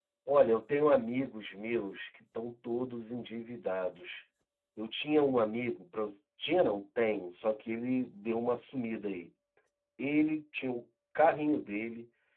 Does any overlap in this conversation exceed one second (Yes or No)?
No